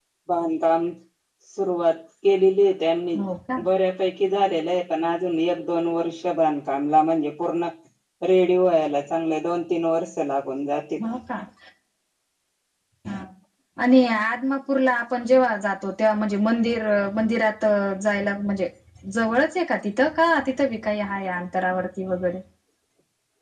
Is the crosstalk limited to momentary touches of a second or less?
Yes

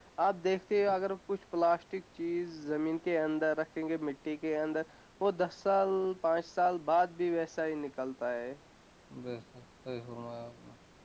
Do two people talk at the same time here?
No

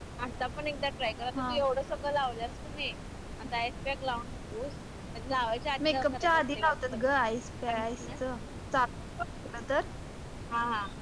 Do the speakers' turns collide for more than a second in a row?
Yes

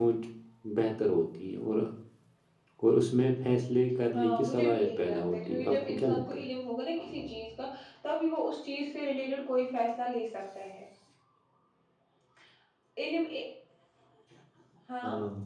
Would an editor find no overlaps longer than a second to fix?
No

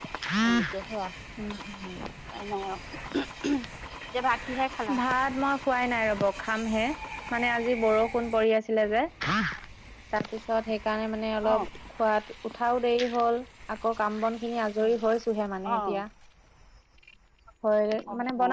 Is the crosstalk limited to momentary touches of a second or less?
Yes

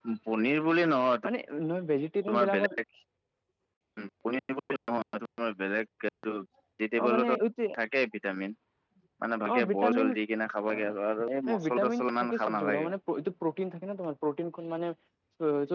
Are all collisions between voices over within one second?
No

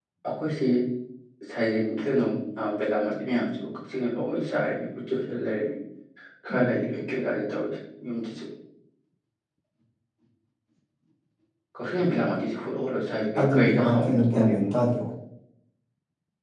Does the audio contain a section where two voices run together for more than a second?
Yes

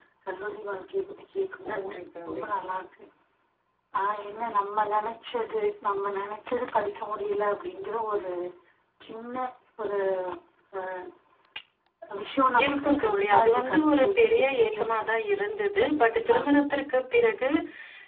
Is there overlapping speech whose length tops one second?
Yes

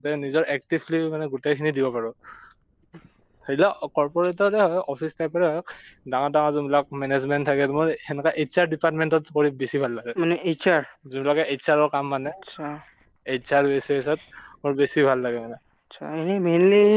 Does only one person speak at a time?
Yes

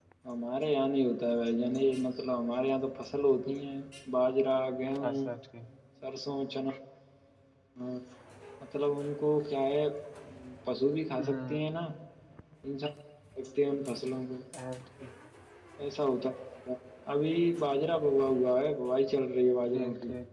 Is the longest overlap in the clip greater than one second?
No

